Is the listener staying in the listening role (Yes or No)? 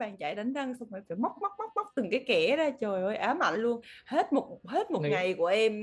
Yes